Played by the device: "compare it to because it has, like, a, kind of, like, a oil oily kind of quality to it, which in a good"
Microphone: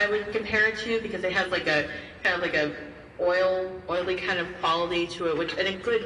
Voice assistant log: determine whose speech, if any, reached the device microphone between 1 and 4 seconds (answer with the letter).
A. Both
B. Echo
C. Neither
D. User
B